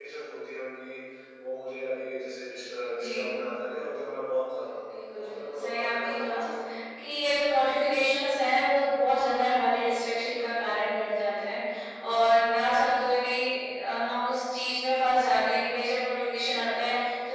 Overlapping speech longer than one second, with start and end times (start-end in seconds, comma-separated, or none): 5.1-6.4